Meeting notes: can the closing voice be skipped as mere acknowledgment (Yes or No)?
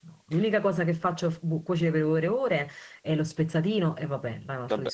No